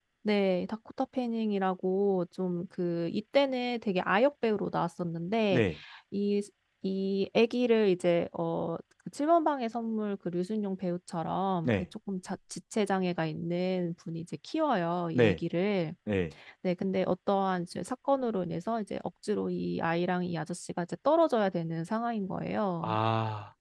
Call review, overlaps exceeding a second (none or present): none